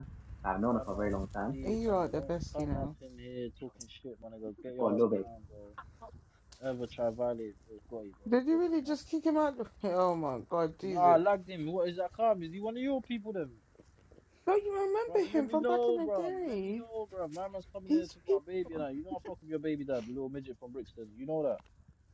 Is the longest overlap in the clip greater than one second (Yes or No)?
Yes